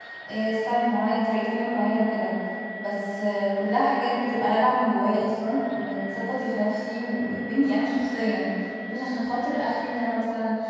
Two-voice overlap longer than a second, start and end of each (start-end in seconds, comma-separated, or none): none